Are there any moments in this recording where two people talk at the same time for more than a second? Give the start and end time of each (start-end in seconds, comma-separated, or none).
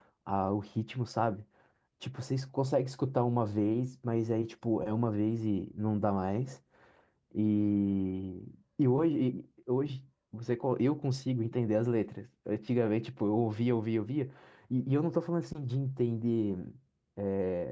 none